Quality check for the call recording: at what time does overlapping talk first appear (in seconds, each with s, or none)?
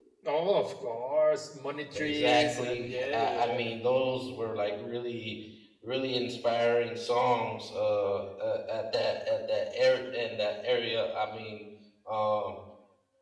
1.9 s